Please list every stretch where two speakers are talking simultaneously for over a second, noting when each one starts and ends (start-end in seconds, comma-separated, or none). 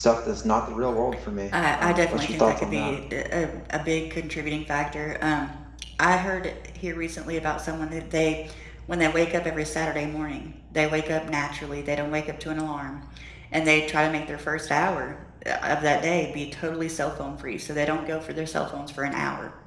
1.5-2.9